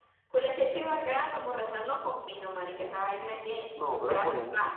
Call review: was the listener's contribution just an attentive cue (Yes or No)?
No